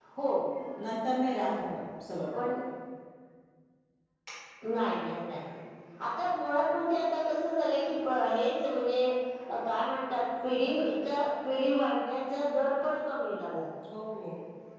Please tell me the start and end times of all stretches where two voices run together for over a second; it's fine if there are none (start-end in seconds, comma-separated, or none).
none